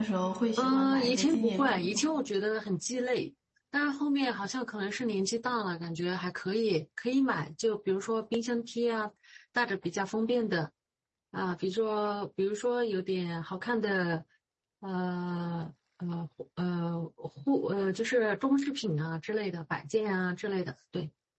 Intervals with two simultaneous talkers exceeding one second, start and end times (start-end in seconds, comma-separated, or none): 0.6-2.0